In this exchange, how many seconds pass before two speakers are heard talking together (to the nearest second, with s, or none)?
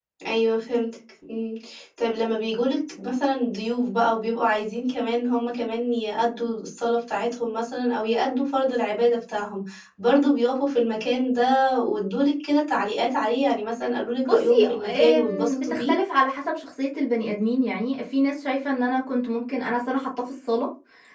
14 s